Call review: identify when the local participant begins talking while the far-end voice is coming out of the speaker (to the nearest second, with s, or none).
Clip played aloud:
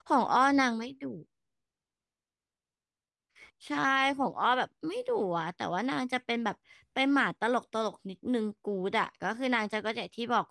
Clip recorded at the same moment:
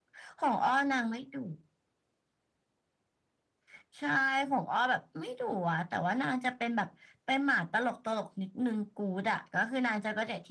none